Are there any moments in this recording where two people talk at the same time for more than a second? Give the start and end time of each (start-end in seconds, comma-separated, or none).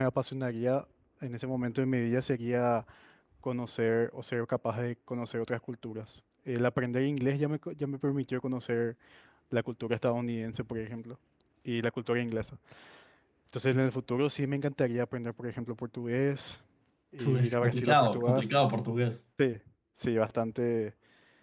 17.2-18.4